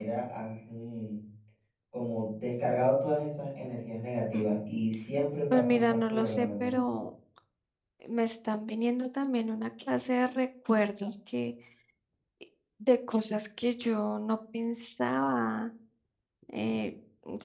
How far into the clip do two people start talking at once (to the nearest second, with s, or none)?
6 s